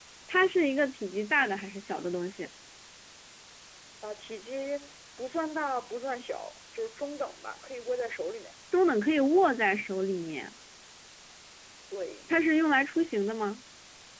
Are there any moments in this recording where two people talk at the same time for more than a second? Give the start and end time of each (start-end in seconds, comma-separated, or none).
none